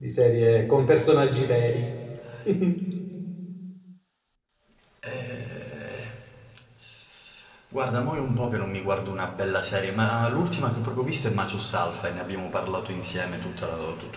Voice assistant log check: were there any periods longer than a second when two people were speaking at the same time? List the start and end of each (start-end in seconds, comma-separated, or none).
none